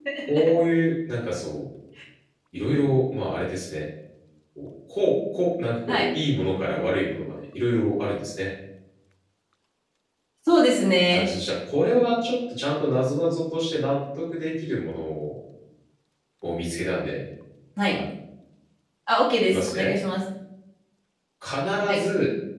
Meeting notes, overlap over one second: none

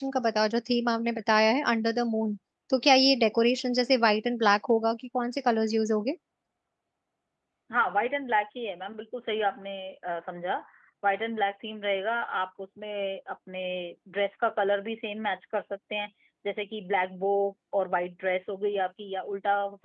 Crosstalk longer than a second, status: none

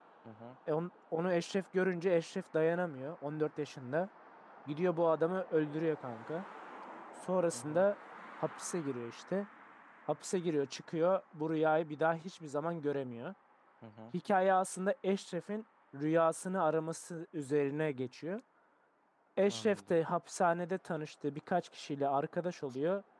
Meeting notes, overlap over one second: none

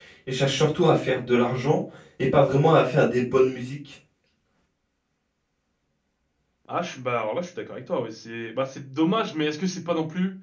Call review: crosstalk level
none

